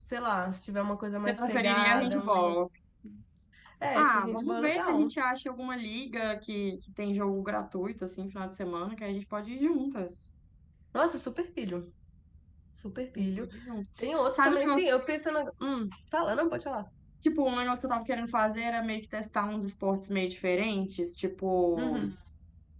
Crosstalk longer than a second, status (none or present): present